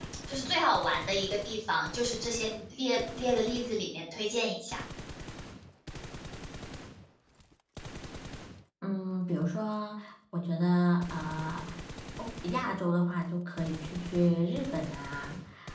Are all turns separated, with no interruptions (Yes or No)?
Yes